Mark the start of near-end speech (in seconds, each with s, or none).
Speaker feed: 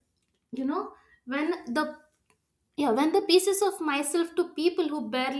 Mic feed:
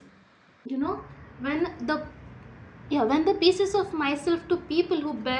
none